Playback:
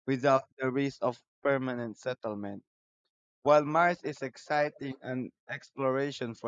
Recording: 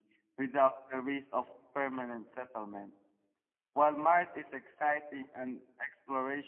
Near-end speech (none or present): none